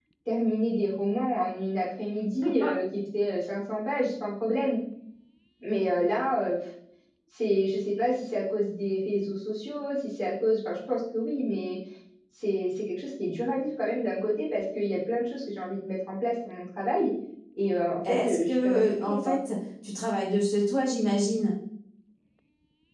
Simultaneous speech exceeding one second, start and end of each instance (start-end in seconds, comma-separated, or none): 18.1-19.4